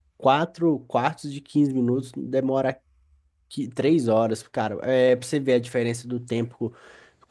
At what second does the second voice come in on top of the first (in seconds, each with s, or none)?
none